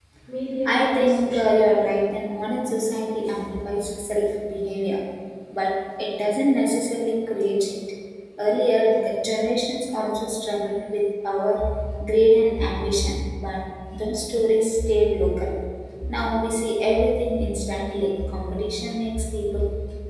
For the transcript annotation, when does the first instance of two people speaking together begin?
0.7 s

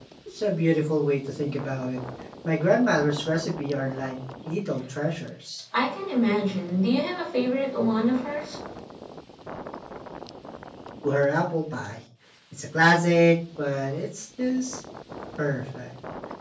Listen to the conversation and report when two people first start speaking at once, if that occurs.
none

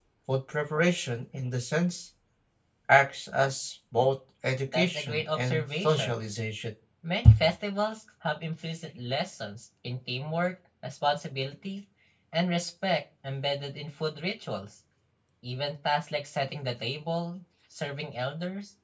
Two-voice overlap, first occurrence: 4.6 s

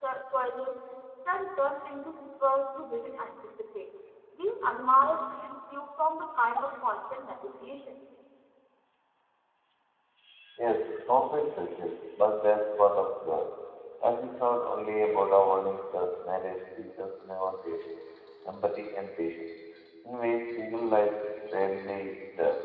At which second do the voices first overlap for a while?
none

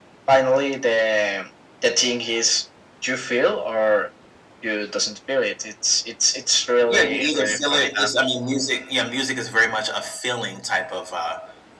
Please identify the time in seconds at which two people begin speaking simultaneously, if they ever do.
6.8 s

